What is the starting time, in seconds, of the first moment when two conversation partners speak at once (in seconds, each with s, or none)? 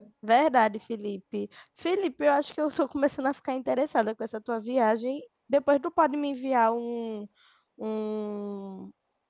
none